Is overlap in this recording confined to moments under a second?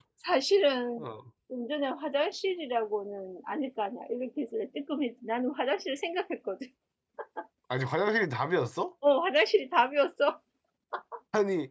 Yes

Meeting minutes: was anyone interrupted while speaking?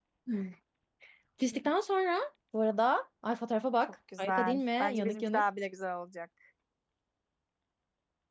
Yes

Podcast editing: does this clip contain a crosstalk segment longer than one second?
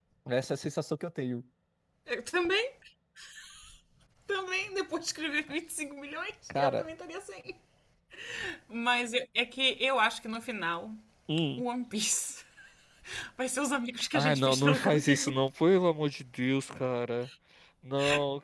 Yes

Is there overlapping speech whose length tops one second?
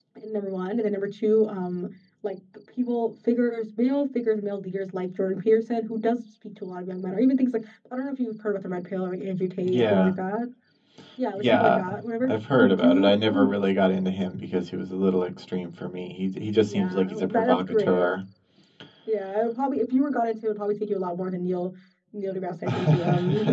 Yes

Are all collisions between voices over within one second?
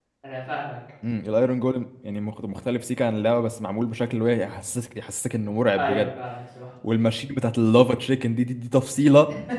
Yes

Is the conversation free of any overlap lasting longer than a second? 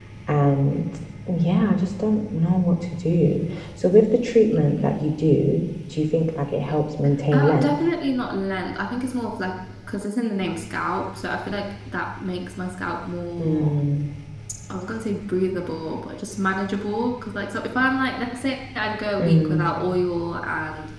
Yes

